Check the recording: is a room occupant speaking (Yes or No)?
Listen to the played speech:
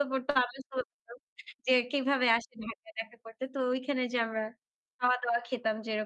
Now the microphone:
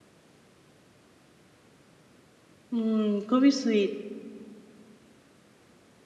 Yes